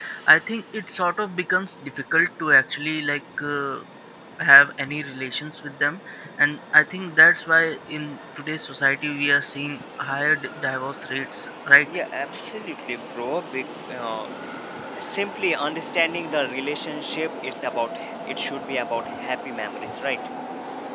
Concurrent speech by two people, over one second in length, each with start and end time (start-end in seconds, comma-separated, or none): none